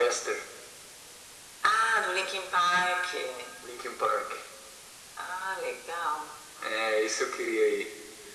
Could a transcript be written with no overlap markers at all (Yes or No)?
Yes